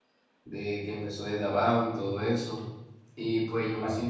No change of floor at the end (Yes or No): Yes